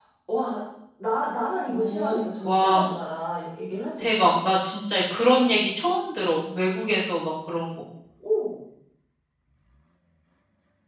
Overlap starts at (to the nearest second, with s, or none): 2 s